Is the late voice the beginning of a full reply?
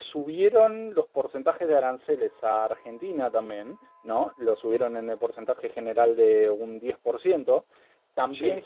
No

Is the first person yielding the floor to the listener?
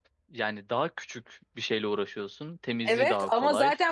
Yes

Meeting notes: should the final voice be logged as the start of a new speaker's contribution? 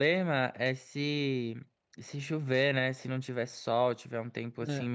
No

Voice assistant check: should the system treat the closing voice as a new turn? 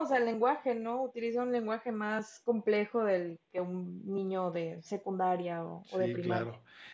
Yes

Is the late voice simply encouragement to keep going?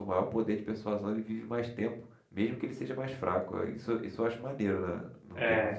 No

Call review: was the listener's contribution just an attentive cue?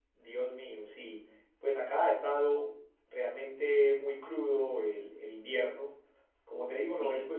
Yes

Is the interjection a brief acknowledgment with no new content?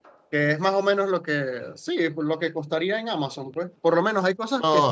Yes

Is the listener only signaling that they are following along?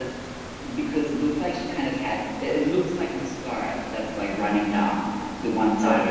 No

